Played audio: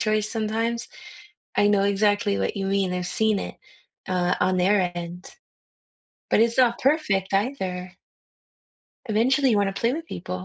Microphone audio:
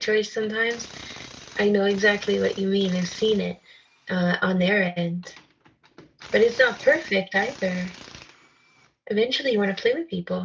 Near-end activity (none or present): none